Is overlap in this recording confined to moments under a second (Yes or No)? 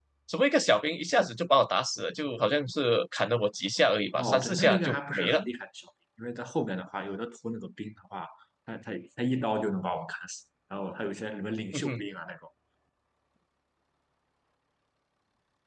No